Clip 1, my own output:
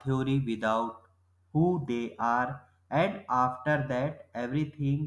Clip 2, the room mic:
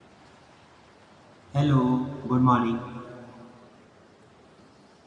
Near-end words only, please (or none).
Hello, good morning.